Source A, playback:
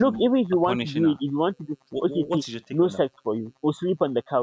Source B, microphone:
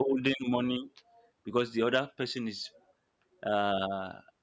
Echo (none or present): none